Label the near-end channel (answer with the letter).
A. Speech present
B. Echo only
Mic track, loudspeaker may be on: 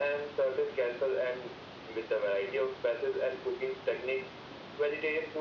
B